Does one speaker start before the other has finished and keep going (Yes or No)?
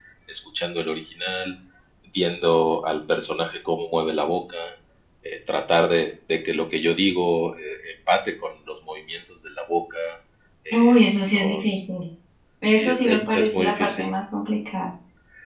Yes